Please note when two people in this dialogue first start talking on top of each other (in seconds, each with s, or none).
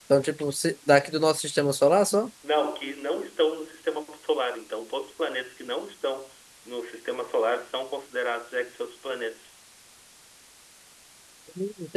none